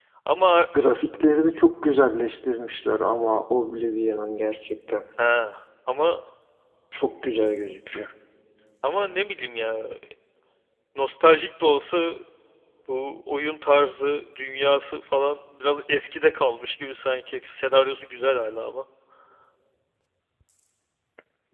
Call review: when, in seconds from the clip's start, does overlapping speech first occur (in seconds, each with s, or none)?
none